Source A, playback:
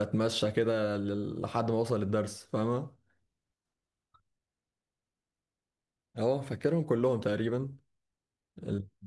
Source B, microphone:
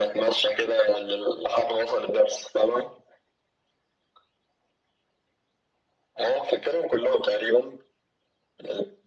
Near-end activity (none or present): none